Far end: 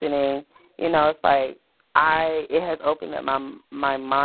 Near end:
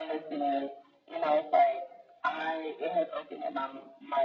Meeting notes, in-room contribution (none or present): none